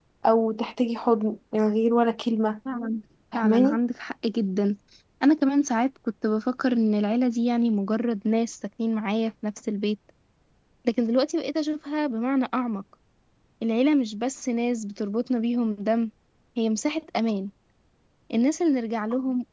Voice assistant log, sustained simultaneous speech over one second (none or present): none